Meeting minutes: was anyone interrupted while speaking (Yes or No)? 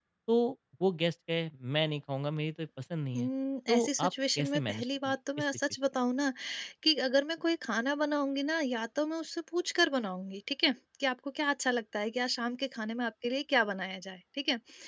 Yes